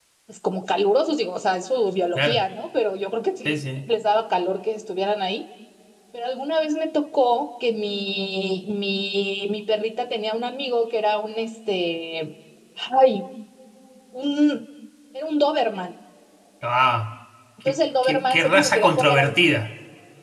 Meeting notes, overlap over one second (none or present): present